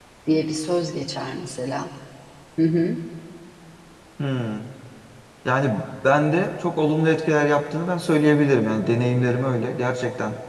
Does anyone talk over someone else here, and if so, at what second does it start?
none

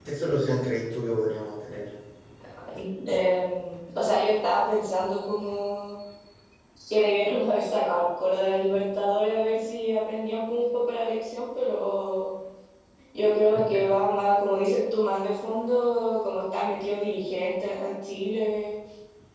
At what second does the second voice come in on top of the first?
none

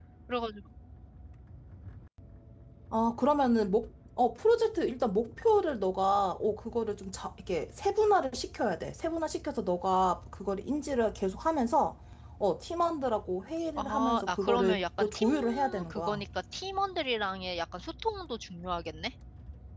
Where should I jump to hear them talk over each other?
13.8 s

